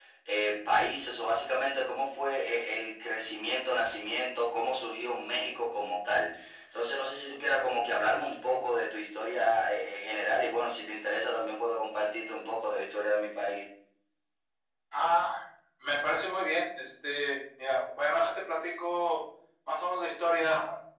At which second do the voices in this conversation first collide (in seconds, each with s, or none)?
none